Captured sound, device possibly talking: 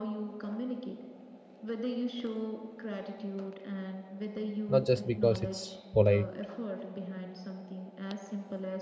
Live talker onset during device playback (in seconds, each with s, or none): 4.7 s